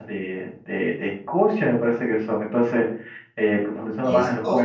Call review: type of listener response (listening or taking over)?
listening